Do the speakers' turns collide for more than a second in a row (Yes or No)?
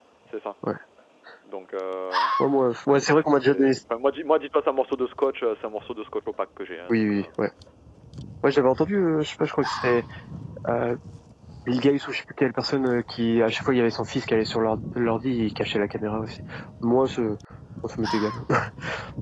No